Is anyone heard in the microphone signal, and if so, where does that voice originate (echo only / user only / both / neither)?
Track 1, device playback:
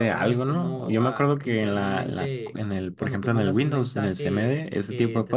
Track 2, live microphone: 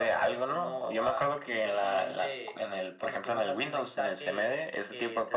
echo only